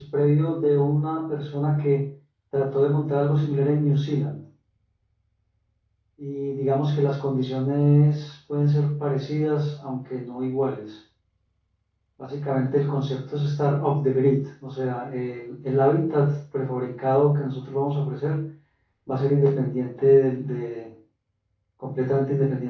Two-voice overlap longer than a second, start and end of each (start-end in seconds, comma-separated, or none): none